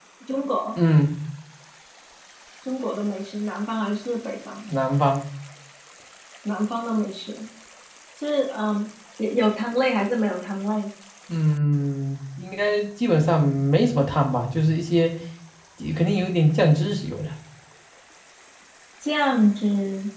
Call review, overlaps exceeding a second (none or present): none